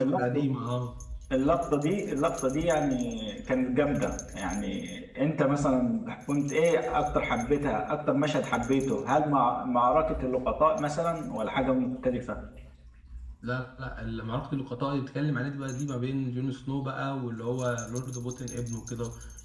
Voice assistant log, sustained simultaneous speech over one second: none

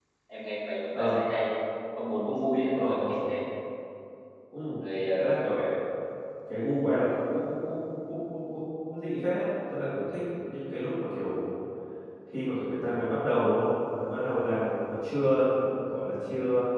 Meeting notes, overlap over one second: none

